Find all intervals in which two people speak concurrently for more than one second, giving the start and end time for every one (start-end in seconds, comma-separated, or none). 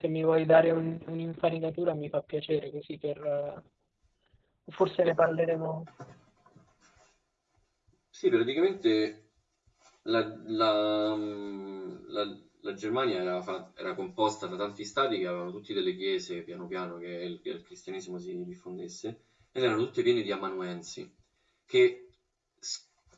none